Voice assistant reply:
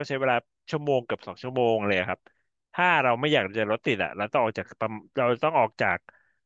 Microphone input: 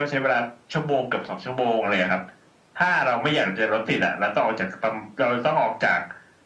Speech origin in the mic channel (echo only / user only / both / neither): echo only